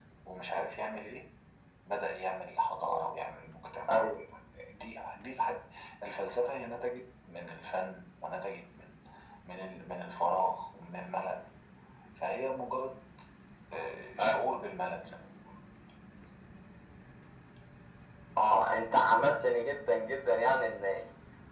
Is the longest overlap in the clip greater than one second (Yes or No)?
No